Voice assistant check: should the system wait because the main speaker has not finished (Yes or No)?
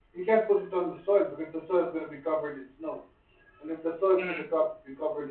Yes